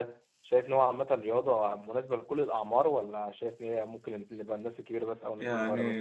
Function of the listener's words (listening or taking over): taking over